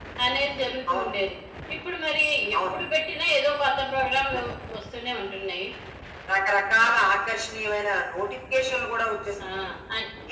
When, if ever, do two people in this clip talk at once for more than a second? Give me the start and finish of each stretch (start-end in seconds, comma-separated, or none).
none